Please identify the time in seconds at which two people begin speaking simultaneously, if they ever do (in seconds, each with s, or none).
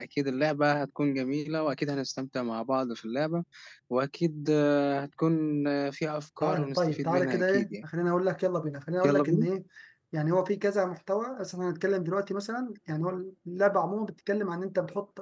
6.4 s